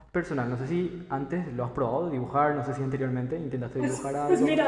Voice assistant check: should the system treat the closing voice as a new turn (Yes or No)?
Yes